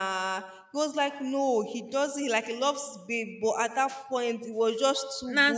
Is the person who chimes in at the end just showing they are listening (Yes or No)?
Yes